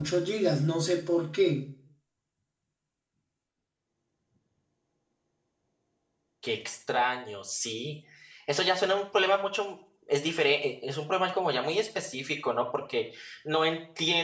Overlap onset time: none

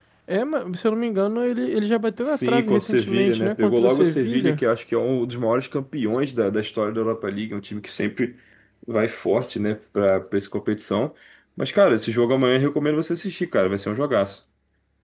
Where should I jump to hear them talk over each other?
2 s

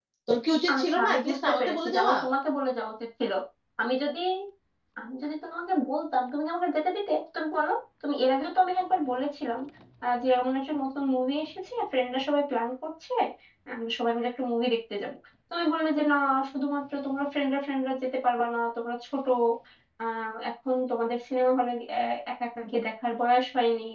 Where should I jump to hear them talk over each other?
1 s

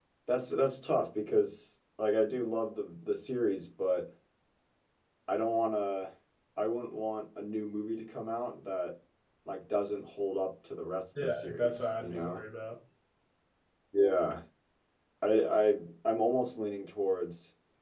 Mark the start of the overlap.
11 s

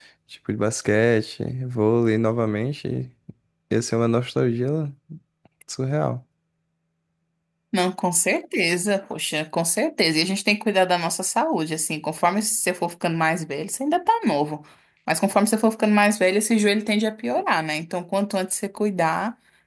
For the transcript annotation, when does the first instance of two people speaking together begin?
none

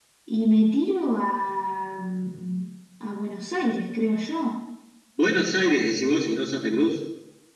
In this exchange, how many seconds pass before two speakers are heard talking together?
none

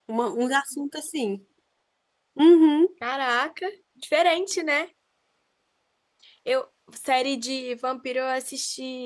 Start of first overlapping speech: none

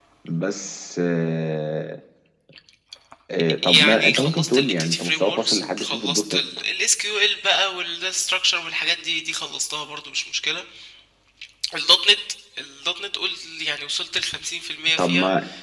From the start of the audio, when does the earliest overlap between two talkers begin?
4 s

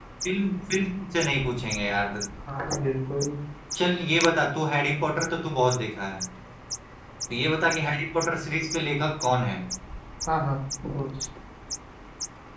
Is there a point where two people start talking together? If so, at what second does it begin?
none

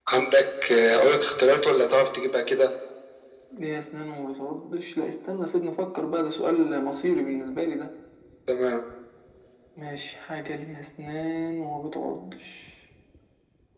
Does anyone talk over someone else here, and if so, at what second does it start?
none

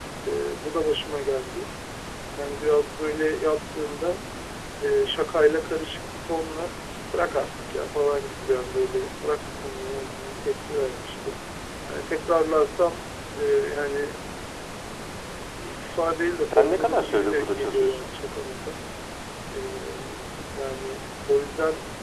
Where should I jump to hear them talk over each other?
16 s

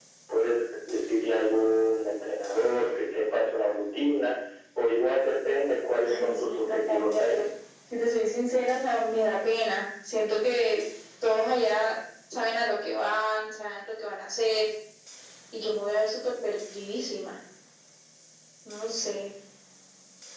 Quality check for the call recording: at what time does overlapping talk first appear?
6 s

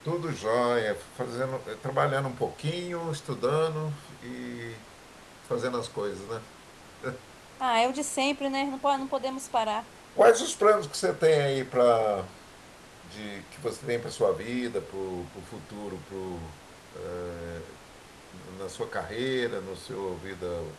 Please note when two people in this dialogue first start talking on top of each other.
none

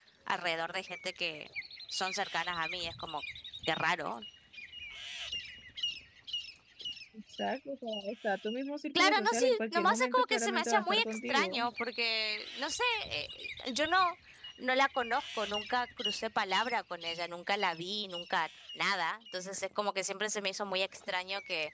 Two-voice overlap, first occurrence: 9 s

